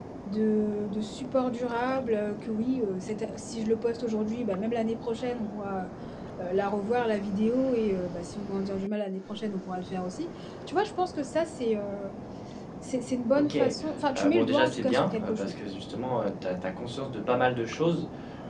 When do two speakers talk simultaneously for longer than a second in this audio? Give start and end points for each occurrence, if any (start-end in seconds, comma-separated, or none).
14.2-15.6